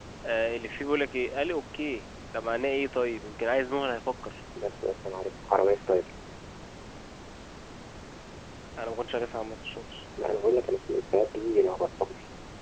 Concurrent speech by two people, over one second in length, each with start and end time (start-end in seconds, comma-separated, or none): none